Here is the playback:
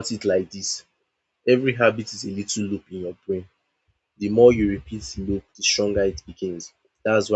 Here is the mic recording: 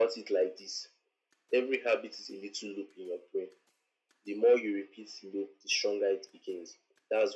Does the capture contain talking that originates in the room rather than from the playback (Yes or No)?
No